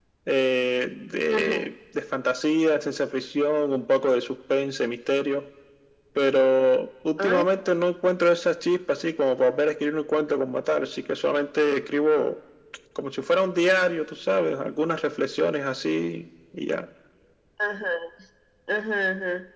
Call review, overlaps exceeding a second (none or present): none